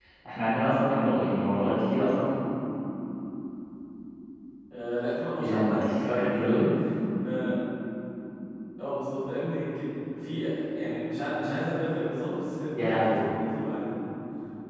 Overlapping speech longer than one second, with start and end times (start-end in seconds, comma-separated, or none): 5.4-6.7